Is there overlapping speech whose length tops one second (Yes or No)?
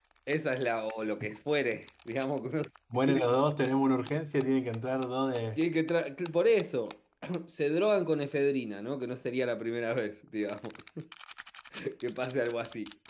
No